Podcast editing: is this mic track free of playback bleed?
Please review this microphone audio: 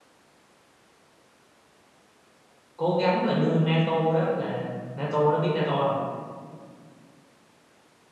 Yes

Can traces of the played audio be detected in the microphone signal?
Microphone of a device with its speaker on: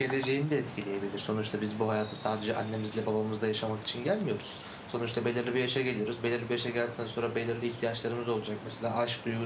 No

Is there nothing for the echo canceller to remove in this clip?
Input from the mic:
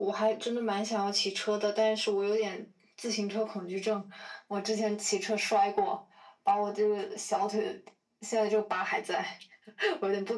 No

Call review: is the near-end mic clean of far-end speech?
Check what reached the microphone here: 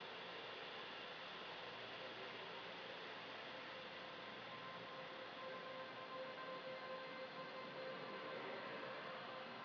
Yes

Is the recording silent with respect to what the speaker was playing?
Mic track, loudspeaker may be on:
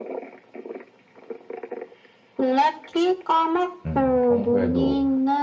No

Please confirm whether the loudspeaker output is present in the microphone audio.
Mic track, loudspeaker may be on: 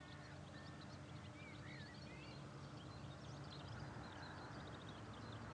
No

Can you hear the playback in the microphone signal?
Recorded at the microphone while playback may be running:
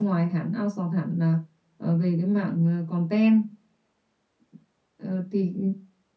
No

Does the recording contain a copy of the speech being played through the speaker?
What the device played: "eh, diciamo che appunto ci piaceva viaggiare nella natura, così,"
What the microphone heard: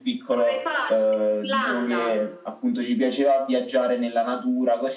Yes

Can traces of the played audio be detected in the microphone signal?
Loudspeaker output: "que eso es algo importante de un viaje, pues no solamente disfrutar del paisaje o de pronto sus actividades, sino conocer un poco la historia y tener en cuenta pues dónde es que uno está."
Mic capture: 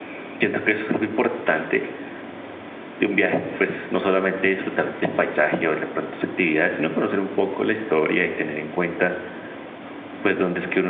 Yes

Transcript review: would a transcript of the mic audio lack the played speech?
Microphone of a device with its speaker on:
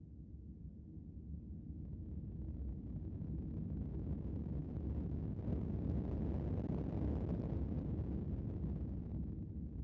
Yes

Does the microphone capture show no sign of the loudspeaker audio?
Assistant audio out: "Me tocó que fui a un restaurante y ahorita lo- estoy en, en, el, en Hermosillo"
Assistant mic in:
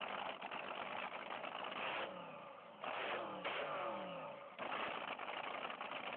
Yes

